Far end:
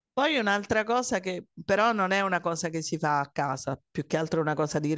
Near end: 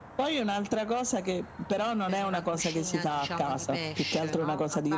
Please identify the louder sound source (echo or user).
echo